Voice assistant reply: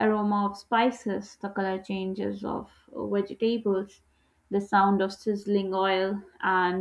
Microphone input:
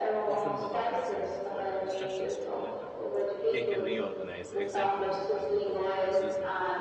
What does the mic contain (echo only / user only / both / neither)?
both